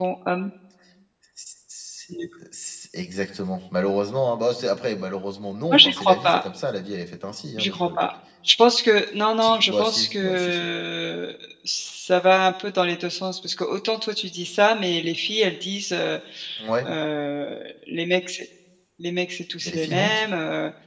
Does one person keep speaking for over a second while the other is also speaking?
Yes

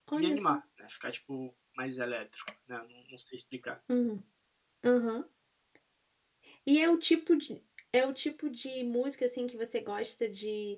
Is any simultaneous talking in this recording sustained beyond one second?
No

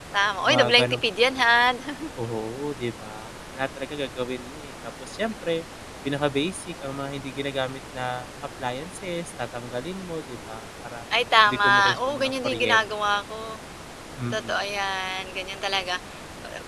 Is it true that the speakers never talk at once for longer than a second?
No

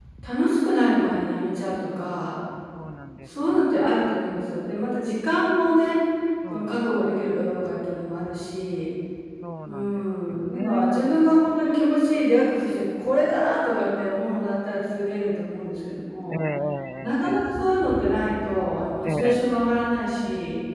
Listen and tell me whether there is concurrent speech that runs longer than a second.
Yes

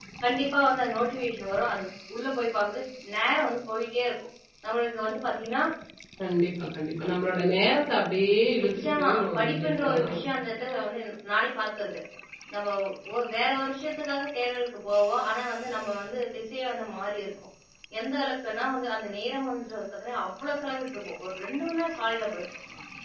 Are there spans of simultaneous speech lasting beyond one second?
Yes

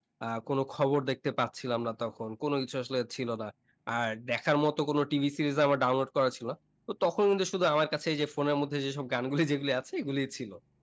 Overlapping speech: No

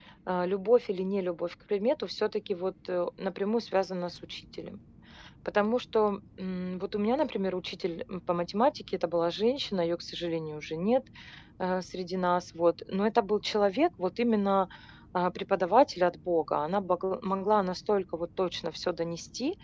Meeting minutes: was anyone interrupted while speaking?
No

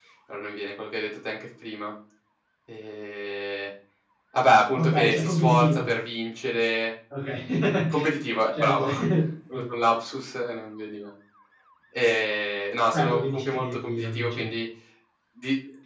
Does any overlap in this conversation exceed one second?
Yes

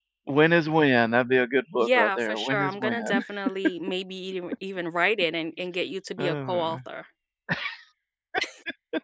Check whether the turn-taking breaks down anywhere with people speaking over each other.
Yes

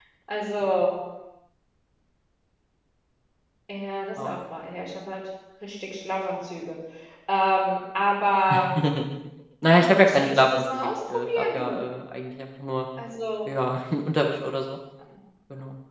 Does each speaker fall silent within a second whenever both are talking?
No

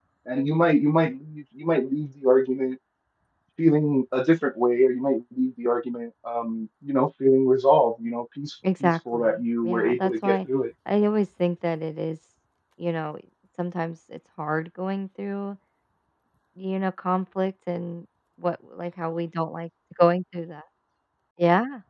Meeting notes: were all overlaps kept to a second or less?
No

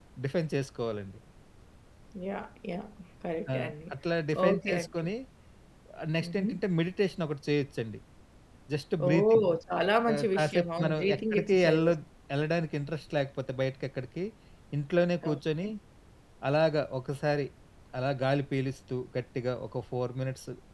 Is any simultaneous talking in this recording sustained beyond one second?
Yes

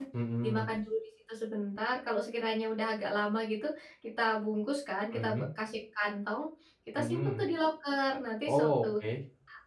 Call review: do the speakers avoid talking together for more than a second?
Yes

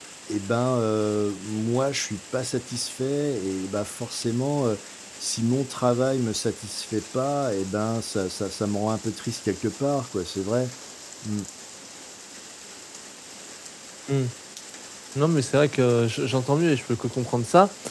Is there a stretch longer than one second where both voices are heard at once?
No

